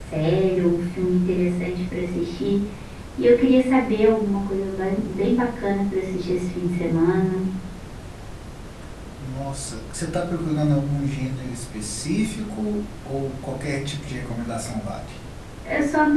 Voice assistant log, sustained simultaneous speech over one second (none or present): none